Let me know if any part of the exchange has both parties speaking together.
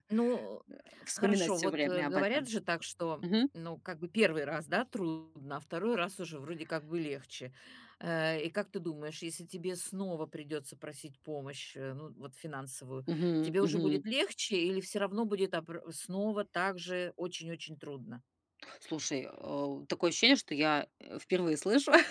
Yes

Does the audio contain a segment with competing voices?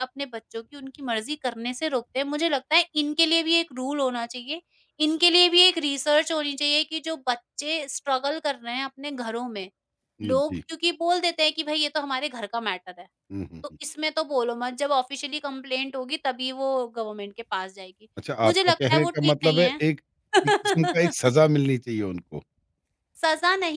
Yes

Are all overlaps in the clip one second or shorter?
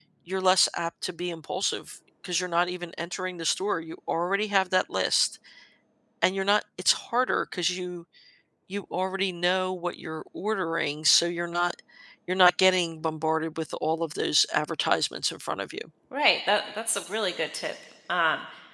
Yes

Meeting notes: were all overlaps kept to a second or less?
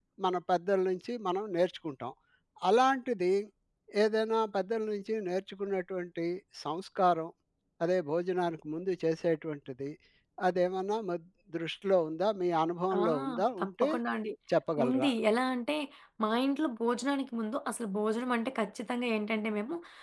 Yes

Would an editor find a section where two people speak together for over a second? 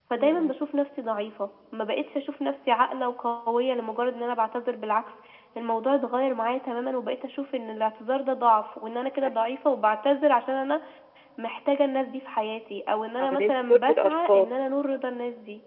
Yes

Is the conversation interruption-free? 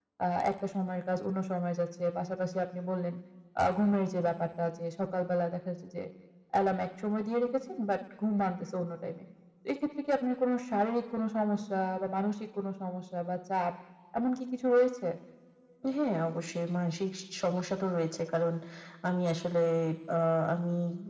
Yes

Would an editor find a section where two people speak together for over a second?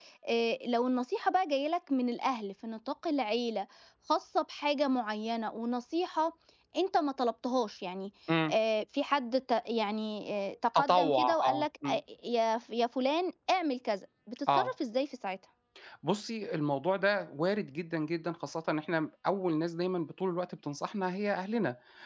Yes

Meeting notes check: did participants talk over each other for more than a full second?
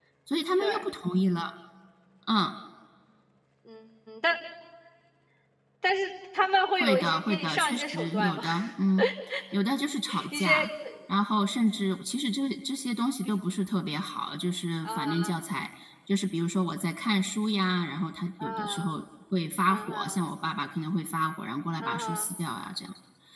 Yes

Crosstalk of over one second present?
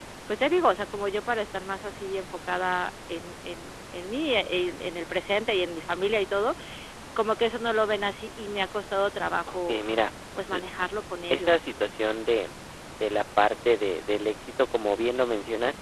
No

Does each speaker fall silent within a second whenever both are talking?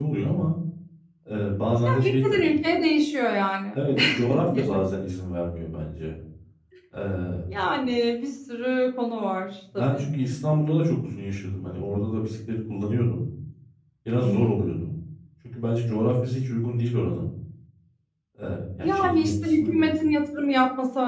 No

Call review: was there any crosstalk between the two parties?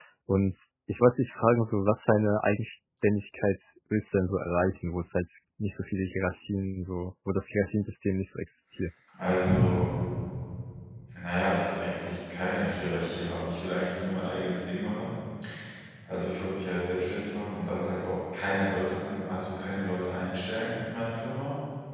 No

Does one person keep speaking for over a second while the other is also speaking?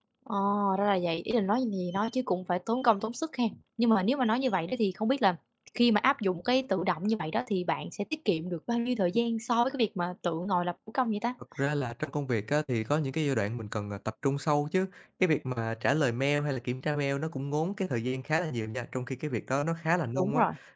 No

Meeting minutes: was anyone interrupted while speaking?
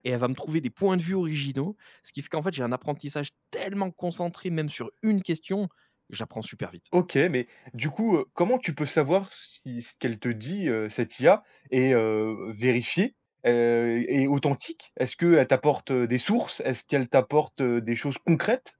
No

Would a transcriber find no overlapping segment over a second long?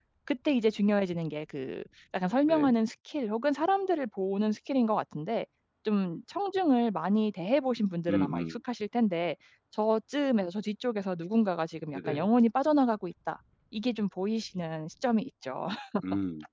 Yes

